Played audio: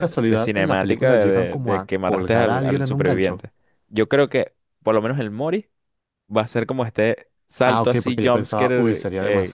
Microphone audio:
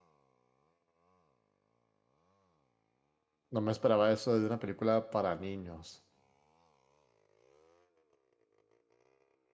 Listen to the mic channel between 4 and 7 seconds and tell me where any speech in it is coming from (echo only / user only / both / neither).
user only